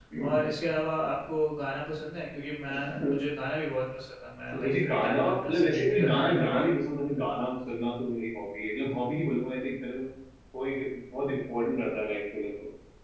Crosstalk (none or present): present